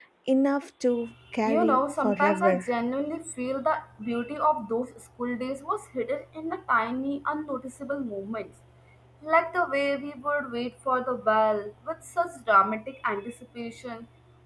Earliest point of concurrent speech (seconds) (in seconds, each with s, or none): 1.4 s